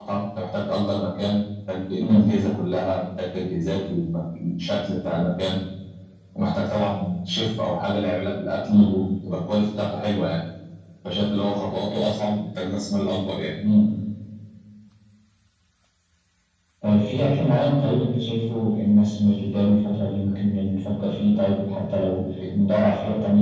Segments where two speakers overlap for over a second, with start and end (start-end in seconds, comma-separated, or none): none